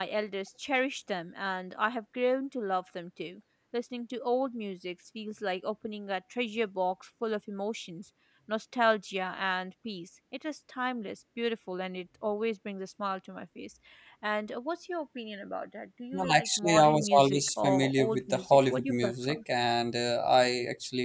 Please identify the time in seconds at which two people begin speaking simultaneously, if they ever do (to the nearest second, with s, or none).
16 s